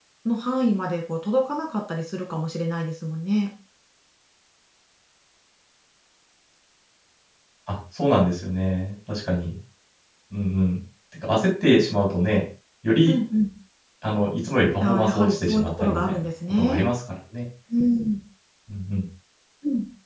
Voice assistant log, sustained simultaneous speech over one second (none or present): present